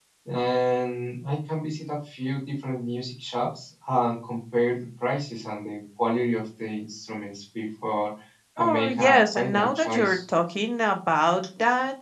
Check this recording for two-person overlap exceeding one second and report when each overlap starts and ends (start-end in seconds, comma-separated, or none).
8.6-10.2